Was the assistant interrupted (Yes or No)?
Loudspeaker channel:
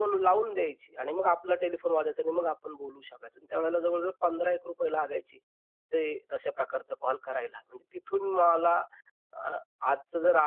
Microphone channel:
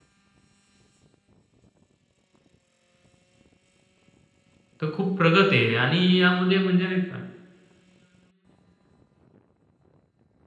Yes